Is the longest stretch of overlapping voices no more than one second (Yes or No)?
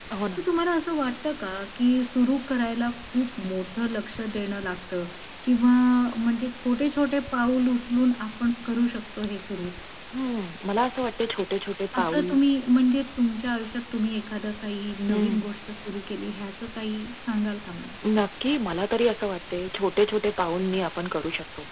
Yes